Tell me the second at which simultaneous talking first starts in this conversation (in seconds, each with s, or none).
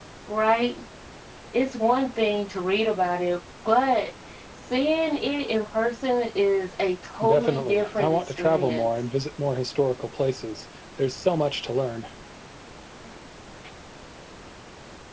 7.2 s